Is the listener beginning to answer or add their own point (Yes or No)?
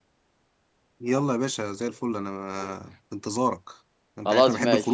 Yes